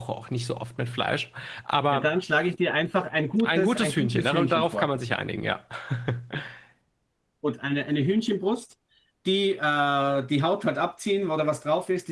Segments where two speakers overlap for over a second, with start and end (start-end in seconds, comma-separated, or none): 3.4-4.9